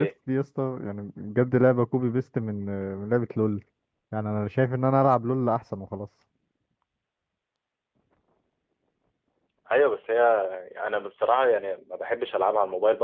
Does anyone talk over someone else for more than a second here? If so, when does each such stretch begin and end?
none

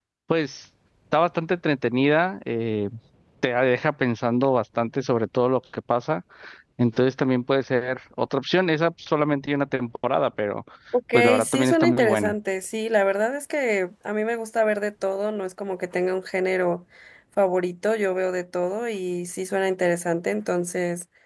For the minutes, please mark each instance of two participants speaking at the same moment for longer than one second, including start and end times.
11.1-12.3

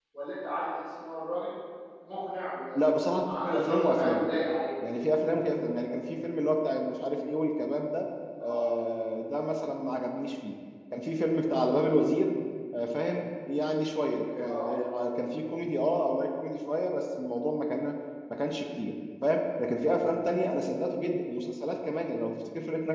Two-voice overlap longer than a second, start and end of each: 2.8-4.2

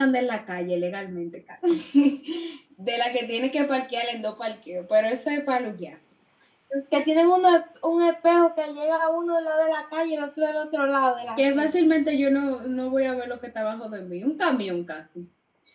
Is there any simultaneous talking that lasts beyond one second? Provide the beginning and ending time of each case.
none

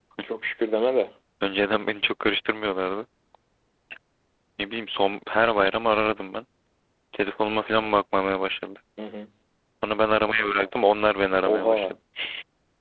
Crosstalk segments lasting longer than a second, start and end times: none

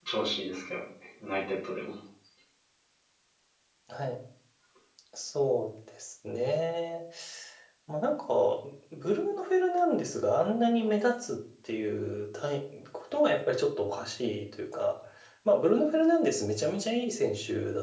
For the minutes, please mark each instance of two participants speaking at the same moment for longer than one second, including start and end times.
none

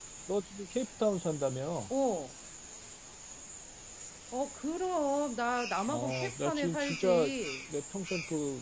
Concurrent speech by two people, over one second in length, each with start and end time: 5.9-7.3

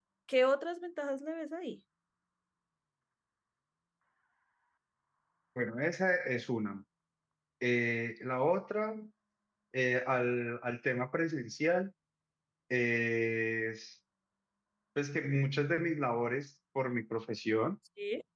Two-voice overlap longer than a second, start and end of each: none

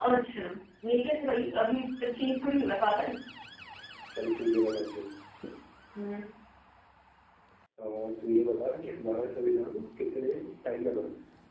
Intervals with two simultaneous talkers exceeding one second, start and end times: none

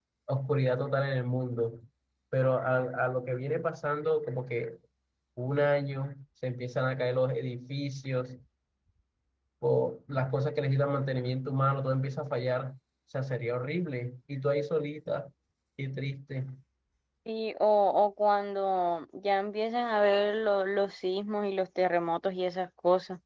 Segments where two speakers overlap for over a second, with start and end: none

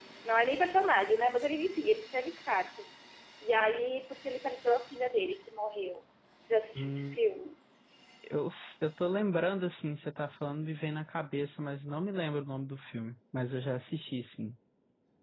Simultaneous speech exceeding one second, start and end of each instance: none

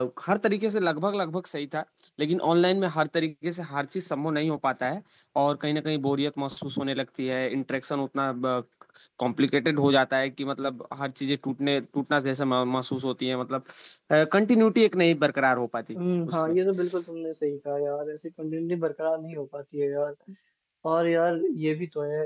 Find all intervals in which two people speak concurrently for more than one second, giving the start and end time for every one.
none

